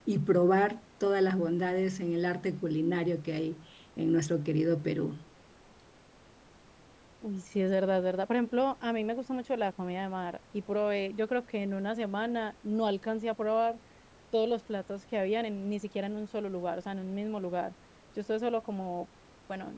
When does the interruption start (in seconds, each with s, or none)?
none